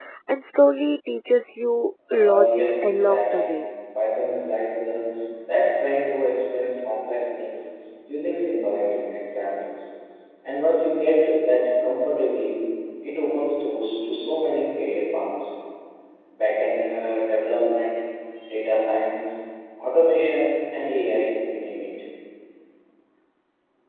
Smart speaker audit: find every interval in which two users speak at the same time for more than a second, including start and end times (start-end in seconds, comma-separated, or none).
2.1-3.5